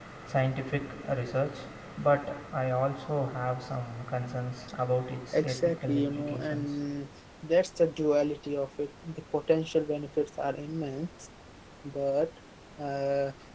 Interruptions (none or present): present